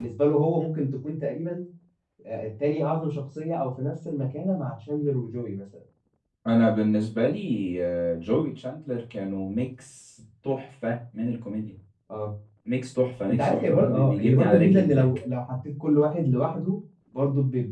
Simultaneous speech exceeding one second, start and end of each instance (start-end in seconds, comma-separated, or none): 13.3-15.2